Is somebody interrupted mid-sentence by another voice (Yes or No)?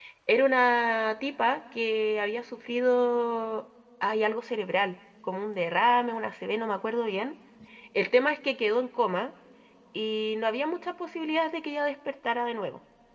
No